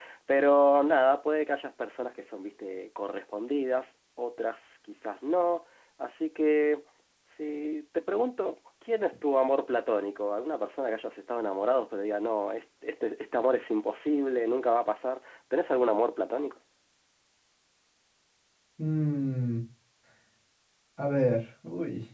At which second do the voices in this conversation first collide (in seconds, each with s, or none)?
none